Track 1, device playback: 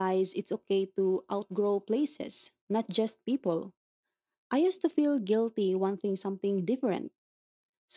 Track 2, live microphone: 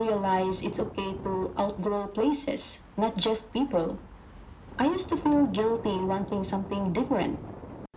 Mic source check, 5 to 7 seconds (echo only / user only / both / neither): echo only